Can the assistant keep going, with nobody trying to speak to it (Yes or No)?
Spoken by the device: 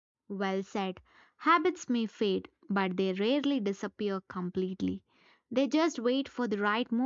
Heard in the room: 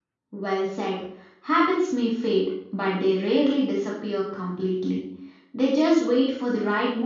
Yes